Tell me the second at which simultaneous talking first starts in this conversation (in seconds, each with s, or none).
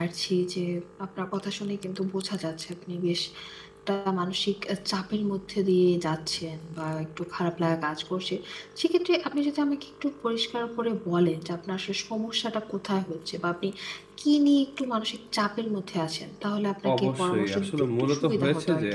16.8 s